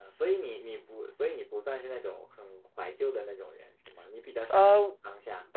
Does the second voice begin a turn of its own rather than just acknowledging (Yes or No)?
Yes